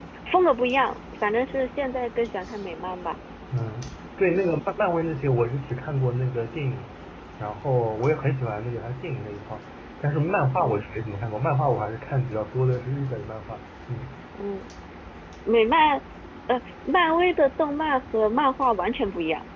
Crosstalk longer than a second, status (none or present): none